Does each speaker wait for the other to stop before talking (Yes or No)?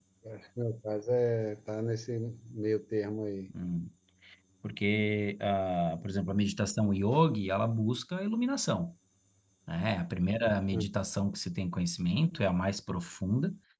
Yes